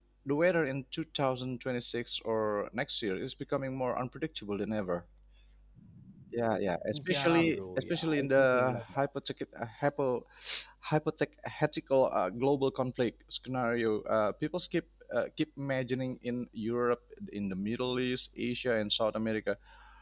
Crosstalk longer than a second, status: present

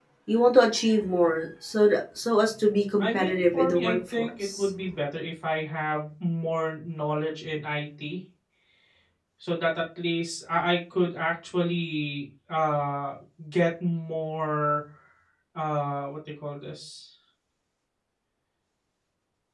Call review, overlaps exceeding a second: present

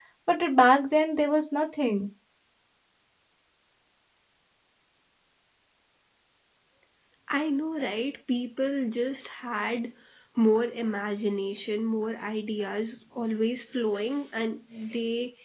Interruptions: none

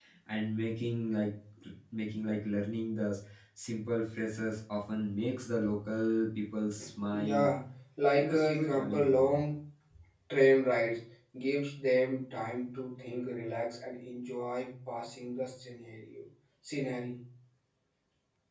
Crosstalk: present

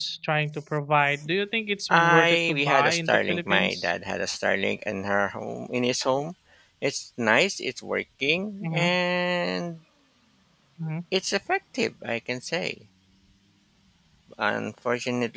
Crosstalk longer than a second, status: present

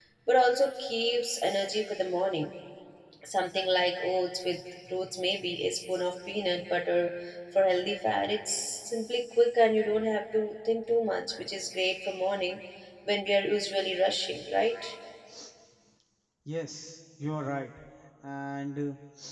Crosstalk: none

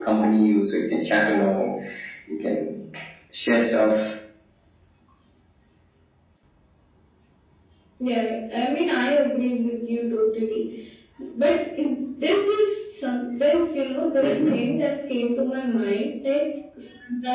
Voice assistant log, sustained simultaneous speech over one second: none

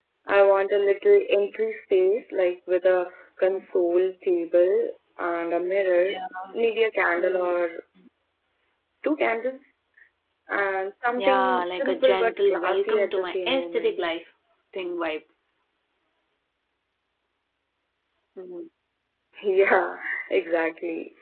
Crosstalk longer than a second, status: present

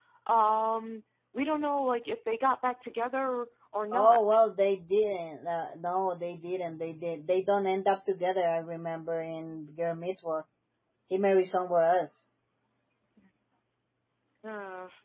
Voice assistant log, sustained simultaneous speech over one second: none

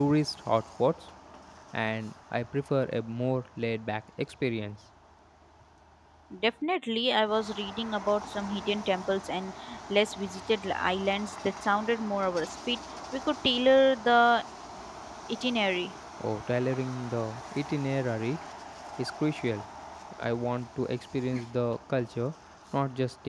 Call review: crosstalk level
none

